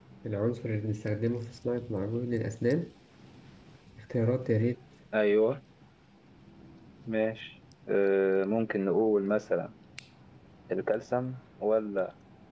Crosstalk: none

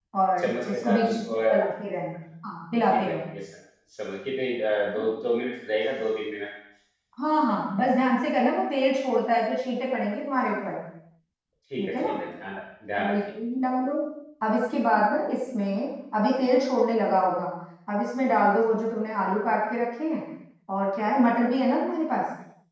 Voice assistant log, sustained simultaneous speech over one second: present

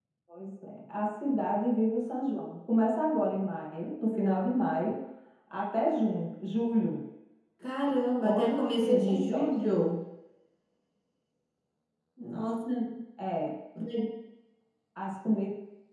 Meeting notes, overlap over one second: present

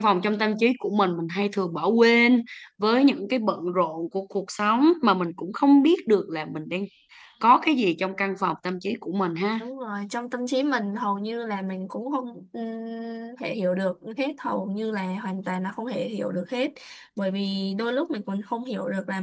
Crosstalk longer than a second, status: none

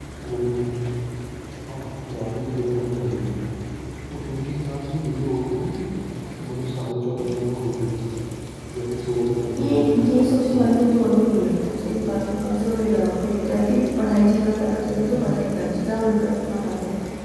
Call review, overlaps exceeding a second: present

